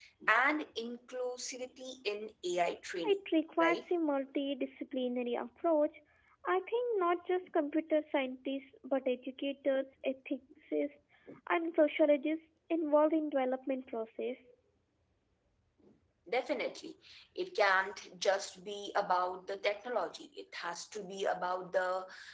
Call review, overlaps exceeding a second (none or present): none